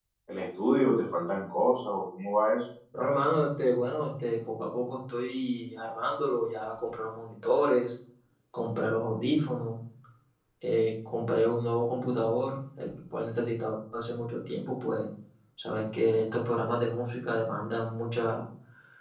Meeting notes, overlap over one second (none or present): none